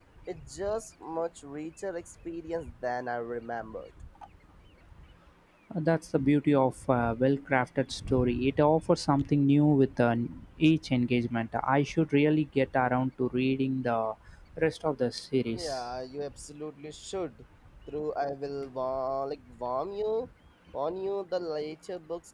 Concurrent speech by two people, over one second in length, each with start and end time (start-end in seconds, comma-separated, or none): none